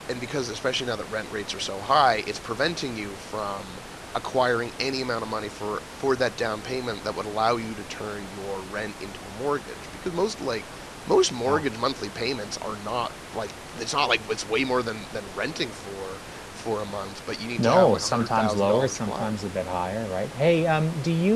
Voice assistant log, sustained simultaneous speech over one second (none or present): present